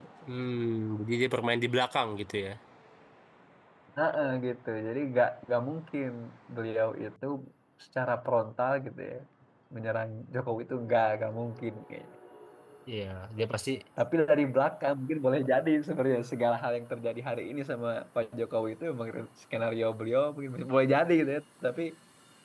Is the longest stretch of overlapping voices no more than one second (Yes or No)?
Yes